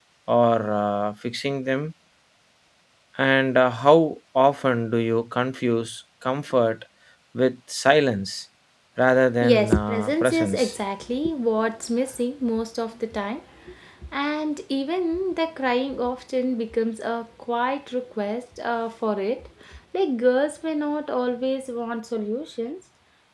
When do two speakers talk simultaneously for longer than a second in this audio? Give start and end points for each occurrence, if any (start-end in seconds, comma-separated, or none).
9.4-10.7